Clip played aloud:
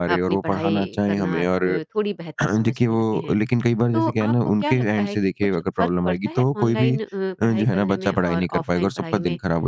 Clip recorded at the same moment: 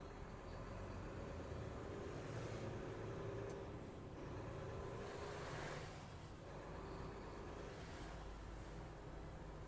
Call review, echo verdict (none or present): none